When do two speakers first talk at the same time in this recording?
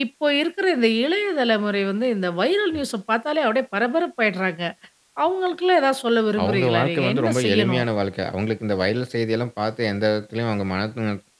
6 s

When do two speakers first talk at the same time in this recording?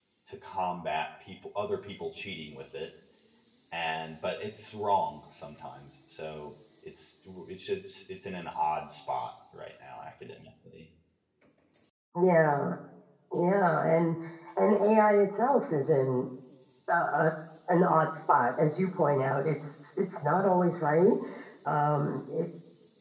none

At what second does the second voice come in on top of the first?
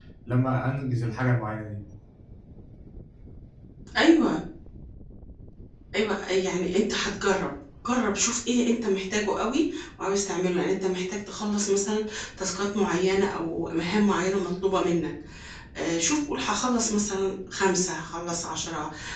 none

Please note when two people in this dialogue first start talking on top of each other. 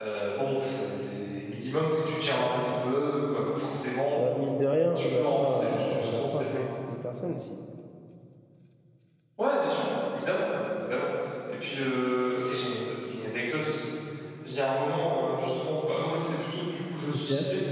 5 s

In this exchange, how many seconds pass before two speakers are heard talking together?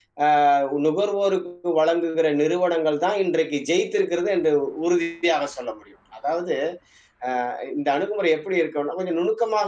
none

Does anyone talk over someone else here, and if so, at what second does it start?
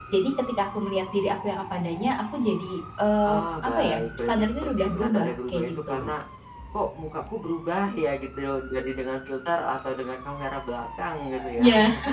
3 s

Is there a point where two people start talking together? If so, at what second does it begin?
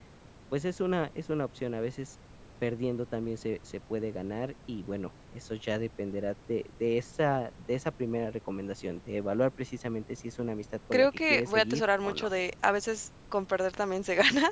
11 s

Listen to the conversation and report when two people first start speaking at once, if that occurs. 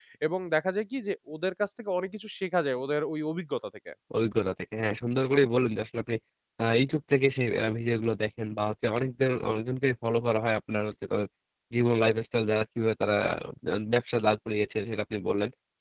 none

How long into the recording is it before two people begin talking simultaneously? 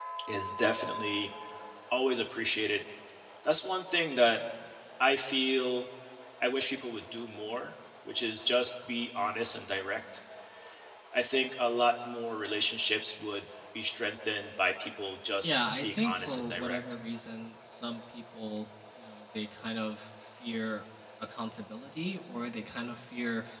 15 s

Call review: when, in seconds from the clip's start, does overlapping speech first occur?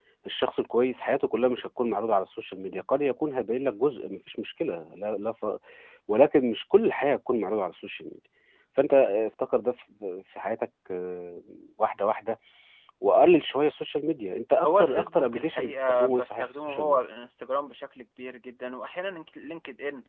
15 s

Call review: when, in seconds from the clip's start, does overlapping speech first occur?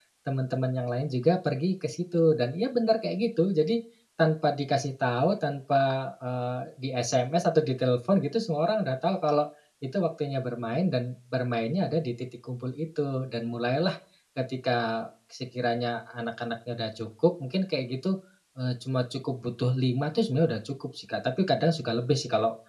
none

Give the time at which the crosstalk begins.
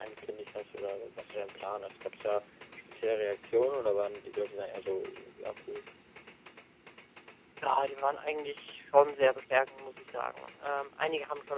none

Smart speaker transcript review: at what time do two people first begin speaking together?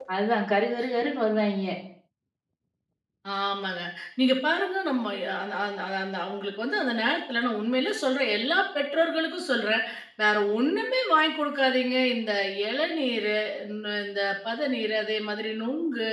none

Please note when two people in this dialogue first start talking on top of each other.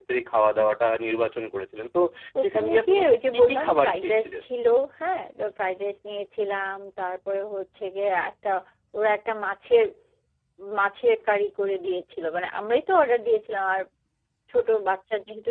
2 s

